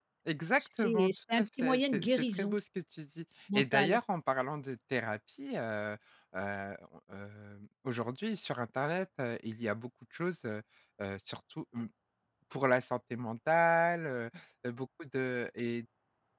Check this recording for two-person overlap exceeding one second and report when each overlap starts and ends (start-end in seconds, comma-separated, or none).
0.6-2.6